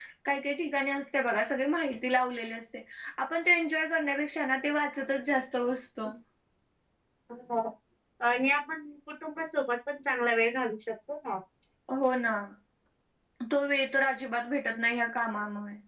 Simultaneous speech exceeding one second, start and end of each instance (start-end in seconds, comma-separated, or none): none